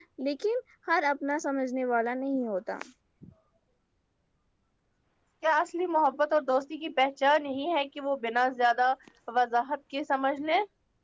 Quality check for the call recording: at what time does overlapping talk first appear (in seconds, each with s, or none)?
none